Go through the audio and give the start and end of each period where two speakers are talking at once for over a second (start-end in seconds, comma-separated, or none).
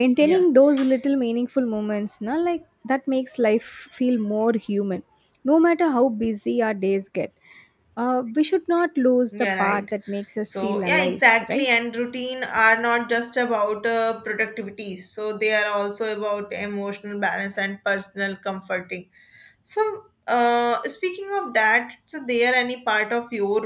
10.4-11.7